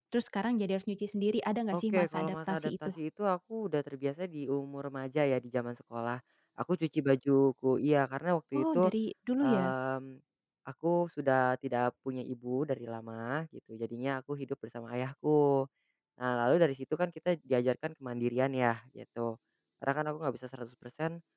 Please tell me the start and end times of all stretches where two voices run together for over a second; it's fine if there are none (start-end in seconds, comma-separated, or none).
1.7-2.9